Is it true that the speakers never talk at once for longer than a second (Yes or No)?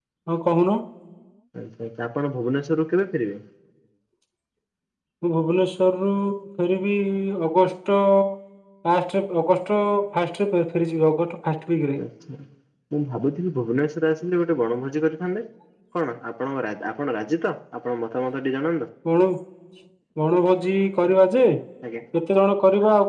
Yes